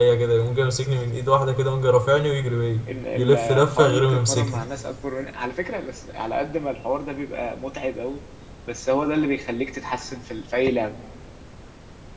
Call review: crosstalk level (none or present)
present